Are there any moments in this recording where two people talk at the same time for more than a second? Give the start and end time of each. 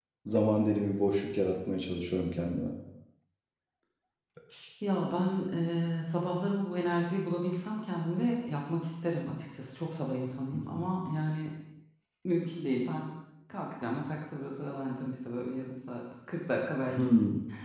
none

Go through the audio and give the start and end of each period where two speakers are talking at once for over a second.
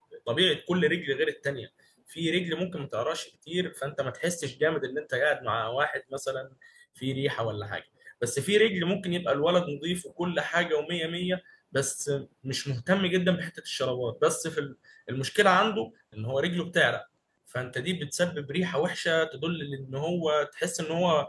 none

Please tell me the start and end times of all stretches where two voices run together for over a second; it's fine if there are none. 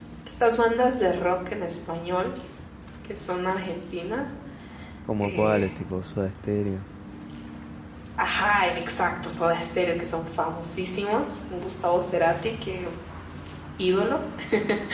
none

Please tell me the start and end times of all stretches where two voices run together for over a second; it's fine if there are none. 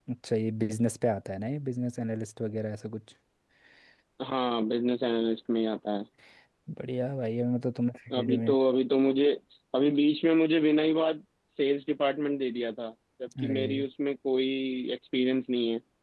none

